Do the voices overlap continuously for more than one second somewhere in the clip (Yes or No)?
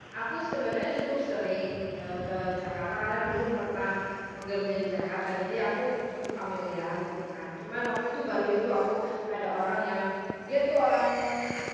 No